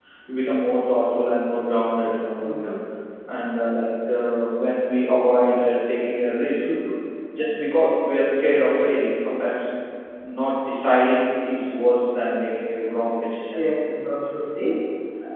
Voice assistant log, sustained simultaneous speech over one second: none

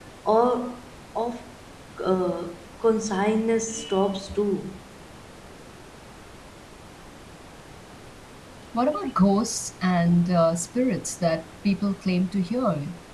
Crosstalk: none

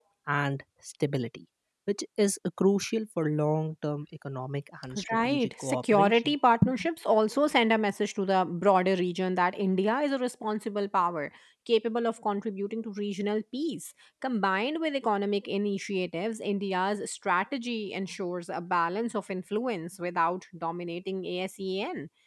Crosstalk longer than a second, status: present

